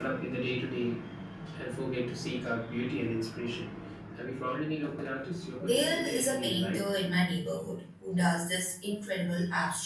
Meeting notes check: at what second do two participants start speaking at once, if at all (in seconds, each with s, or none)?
5.6 s